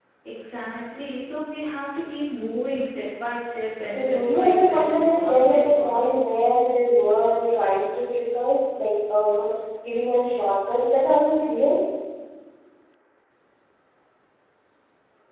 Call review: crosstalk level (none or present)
present